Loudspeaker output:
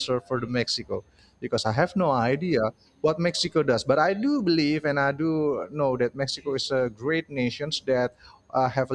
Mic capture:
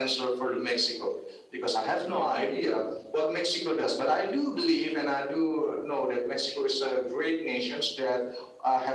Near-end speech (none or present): none